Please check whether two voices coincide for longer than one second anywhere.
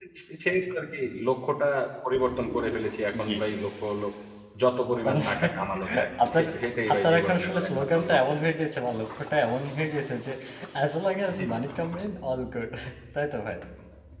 Yes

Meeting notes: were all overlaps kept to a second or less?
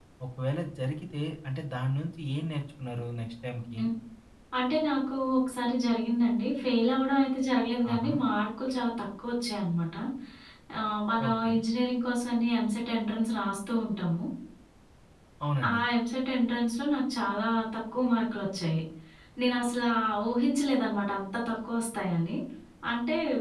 Yes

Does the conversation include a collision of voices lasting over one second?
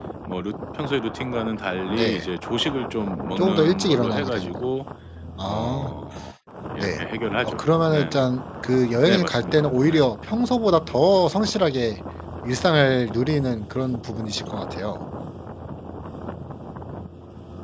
Yes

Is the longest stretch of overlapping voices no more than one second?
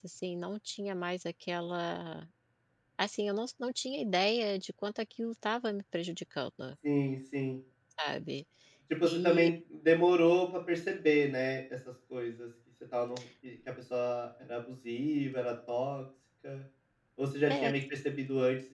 Yes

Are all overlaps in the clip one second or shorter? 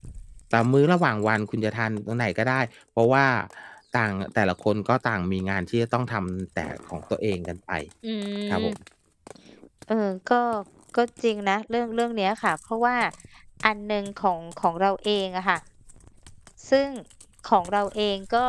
Yes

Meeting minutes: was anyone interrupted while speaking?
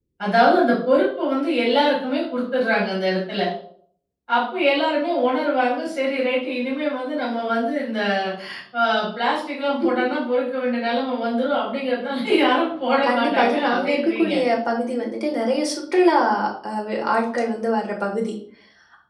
Yes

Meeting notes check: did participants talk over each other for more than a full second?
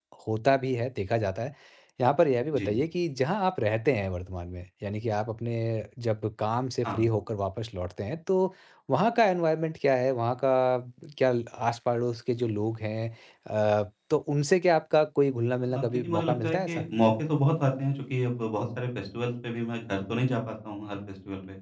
Yes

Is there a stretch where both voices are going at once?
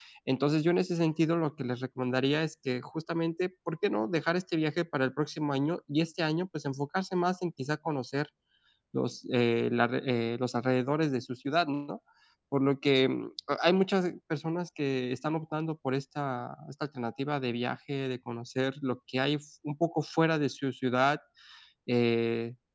No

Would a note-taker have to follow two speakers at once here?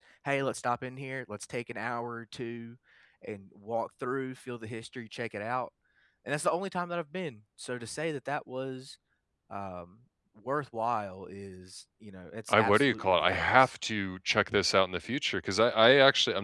Yes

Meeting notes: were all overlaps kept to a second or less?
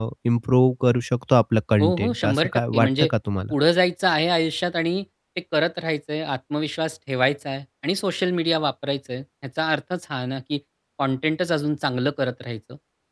No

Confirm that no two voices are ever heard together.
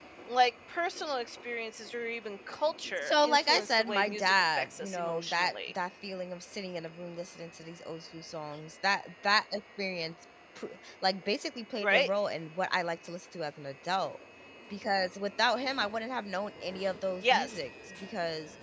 No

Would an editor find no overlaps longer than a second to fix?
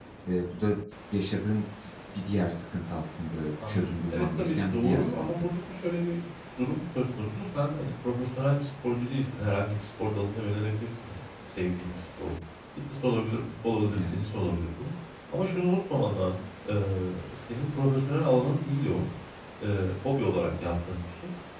No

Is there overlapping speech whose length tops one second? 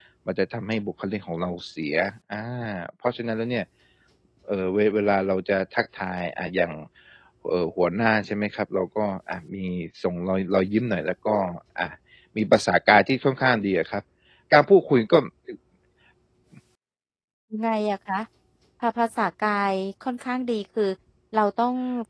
No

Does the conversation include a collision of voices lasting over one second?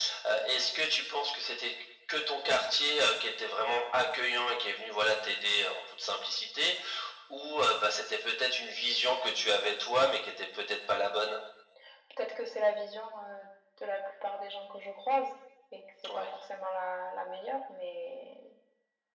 No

